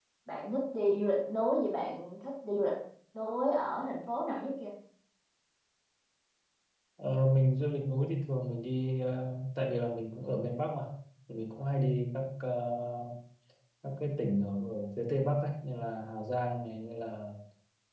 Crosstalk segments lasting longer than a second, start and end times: none

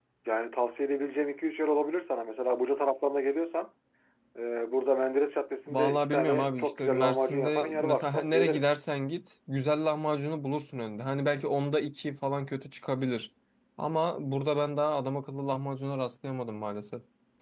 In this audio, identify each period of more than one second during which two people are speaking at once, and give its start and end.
5.7-8.7

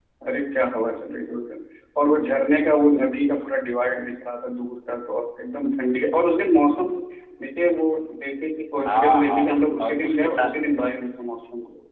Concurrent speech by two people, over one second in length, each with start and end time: 8.8-10.6

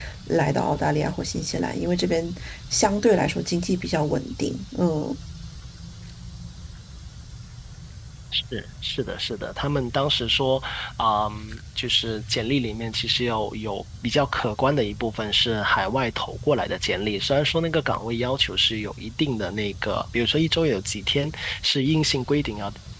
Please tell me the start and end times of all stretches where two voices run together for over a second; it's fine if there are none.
none

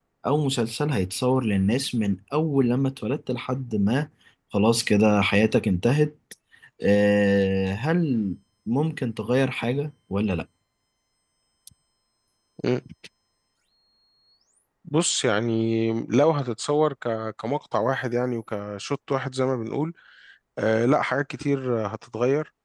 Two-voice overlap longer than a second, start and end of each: none

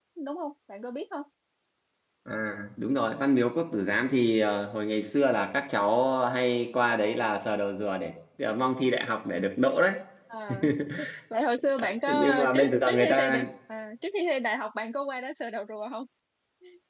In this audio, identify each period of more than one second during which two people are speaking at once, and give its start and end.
12.1-13.4

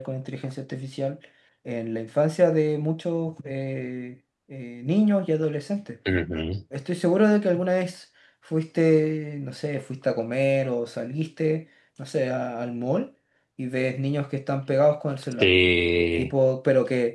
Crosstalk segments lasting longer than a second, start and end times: none

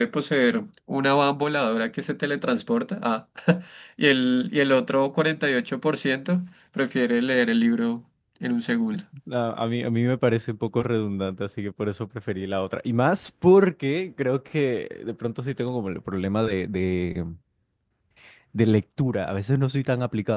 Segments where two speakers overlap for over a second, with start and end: none

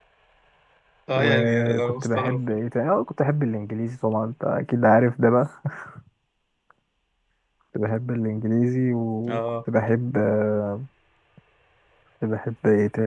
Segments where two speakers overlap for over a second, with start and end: 1.2-2.6

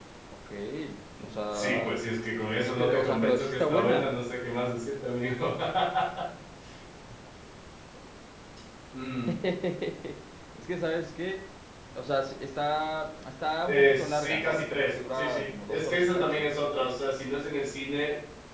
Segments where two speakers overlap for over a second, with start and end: 2.6-4.1, 13.7-16.5

